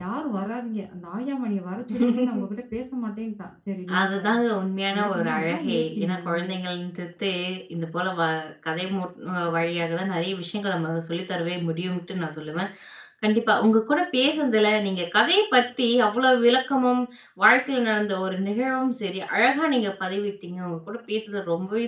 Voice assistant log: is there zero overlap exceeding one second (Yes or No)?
No